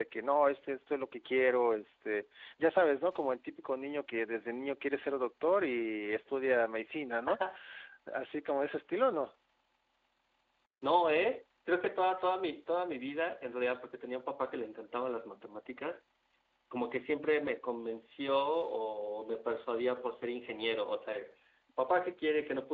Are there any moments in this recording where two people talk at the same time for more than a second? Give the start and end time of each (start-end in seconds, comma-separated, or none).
none